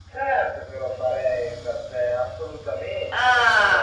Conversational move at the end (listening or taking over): taking over